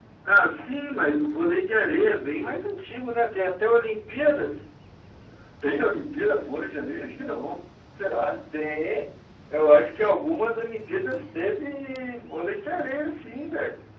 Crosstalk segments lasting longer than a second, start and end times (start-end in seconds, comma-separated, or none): none